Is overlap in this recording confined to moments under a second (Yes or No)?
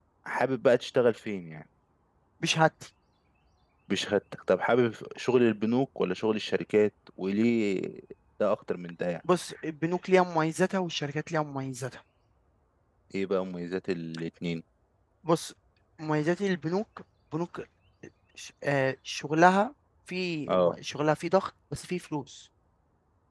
Yes